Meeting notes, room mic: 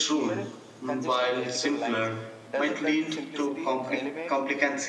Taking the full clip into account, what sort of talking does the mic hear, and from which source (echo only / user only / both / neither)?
both